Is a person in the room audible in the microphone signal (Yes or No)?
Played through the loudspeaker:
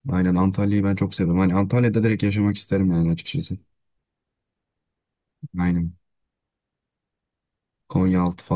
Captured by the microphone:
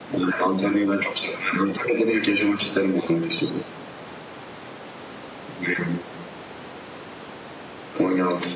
No